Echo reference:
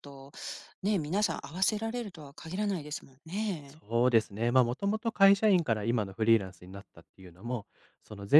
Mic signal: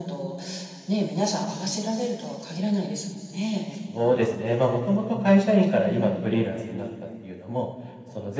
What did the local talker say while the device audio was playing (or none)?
none